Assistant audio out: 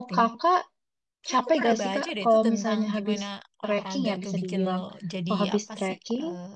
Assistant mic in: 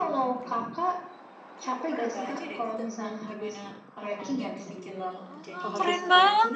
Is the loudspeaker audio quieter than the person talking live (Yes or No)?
Yes